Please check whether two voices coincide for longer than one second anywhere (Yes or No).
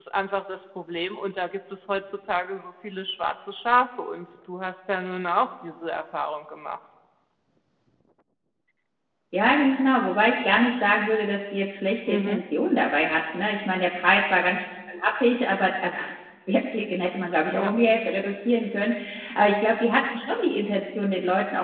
No